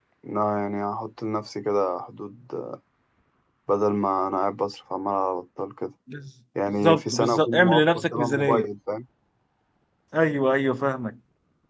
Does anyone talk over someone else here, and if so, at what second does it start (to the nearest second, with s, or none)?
7 s